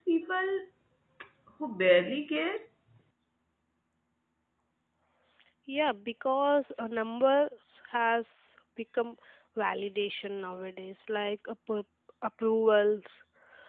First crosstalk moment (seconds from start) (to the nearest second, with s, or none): none